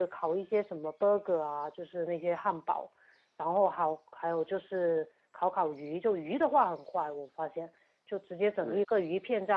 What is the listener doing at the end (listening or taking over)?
listening